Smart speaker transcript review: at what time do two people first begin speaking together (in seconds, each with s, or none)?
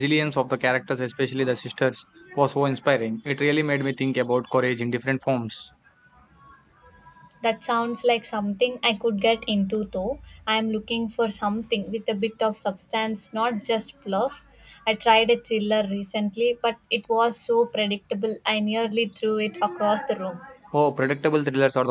none